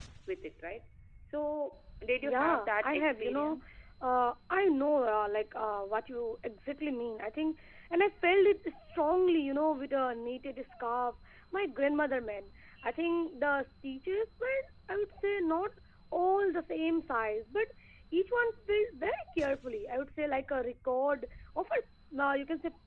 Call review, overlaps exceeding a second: present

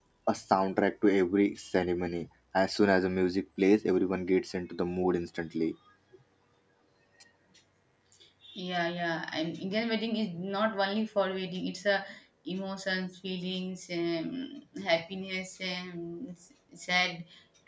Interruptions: none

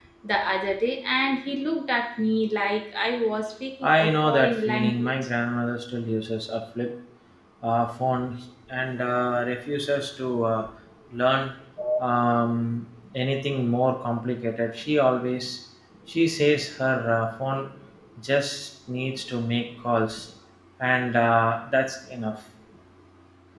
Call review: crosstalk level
present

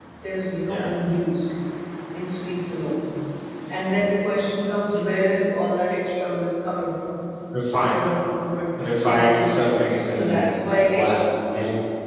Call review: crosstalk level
present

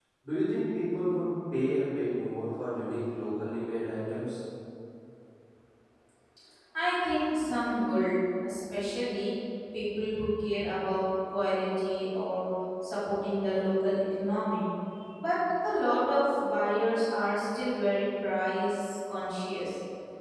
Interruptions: none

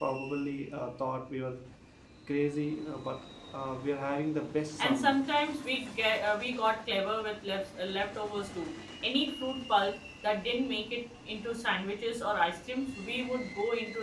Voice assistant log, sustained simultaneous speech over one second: none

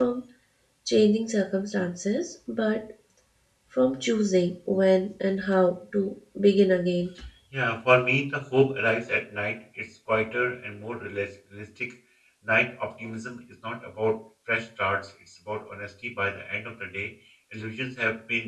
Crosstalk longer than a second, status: none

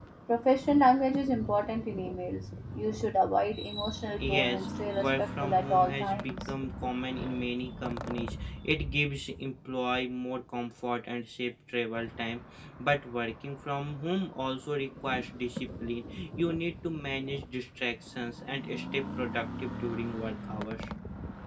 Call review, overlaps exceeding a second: present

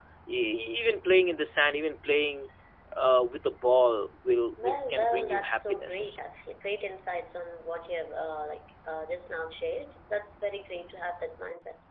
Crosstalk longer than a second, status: present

